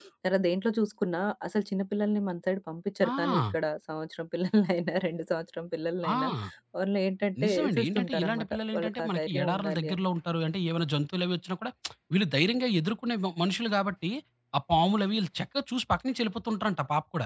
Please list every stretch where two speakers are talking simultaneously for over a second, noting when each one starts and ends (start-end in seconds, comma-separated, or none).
7.4-10.1